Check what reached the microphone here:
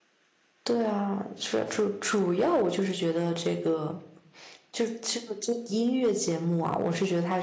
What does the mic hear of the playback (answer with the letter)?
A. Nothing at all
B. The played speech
A